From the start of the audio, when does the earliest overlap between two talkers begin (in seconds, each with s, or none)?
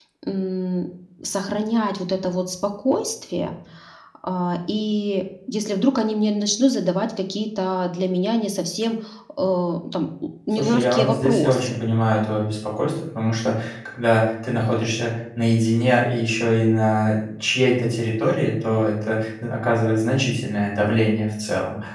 10.5 s